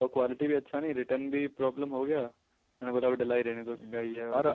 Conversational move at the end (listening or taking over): taking over